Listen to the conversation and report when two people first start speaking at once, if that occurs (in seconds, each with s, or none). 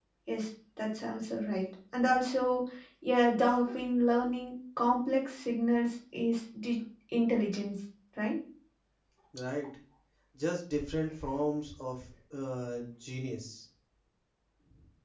none